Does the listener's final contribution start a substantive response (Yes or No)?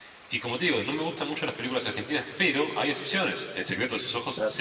No